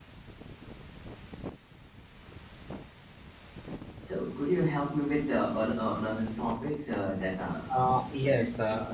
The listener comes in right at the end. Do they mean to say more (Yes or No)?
Yes